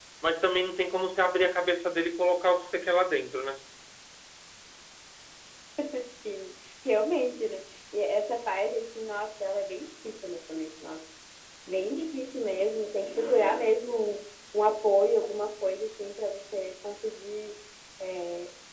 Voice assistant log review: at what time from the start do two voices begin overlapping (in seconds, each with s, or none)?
none